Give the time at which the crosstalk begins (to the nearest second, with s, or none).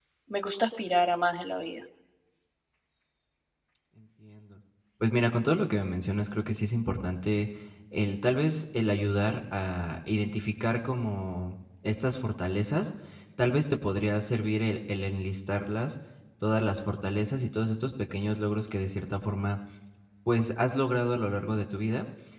none